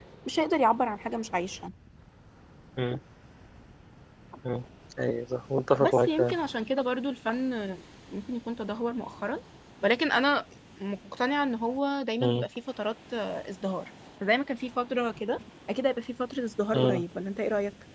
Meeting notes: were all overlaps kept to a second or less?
Yes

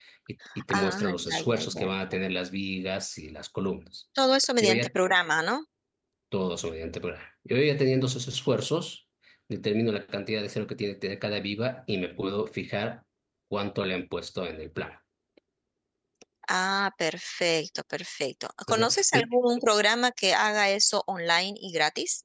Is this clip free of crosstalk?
No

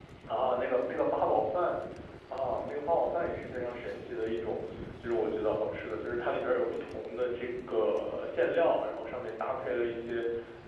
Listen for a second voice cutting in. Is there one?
No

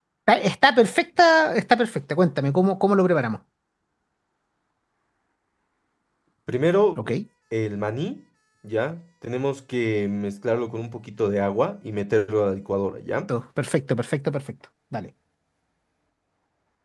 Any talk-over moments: No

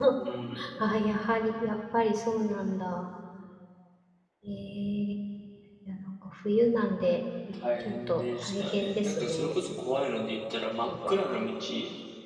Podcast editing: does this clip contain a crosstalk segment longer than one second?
Yes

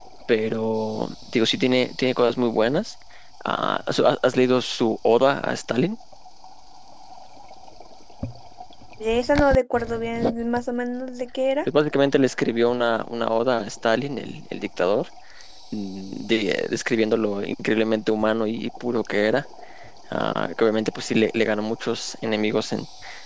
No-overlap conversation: Yes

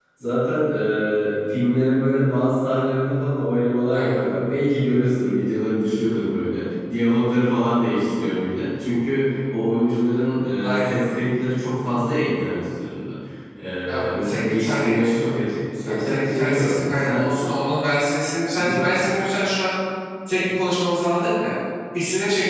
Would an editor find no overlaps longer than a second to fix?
No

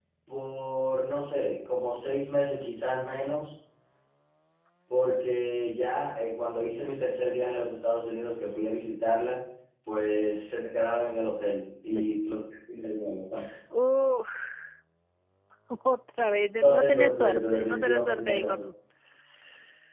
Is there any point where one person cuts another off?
Yes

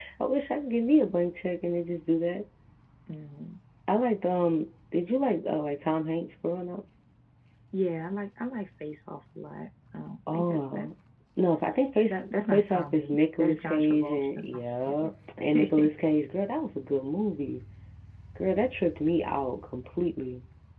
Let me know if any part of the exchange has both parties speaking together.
Yes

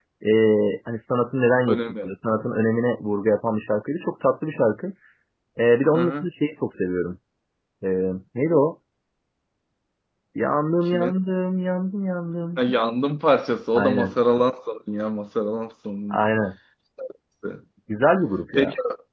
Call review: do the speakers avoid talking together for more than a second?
Yes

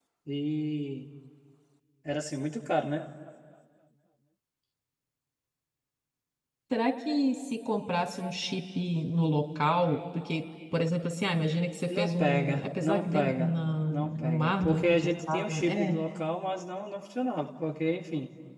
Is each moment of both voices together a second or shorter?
No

